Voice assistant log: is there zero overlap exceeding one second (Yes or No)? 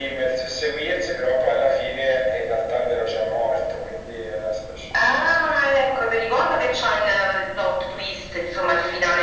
Yes